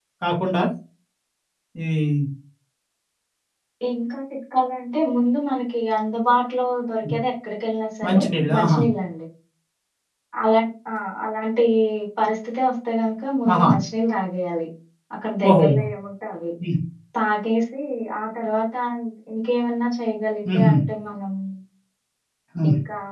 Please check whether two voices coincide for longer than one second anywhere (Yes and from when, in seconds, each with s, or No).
No